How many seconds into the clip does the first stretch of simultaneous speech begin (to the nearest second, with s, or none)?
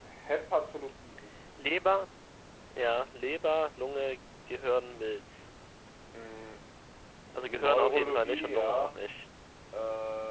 7 s